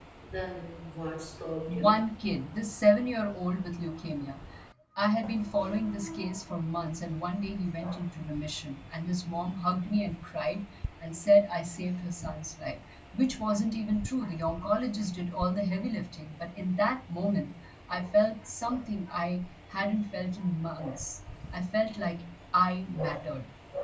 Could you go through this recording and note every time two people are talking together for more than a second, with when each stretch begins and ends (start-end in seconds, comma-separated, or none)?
none